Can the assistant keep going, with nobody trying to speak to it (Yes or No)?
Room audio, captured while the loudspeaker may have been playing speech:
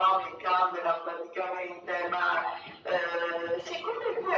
Yes